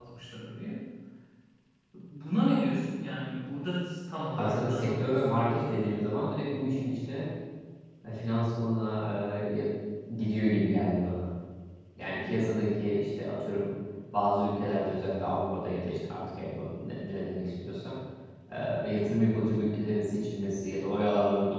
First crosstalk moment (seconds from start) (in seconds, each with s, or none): 4.4 s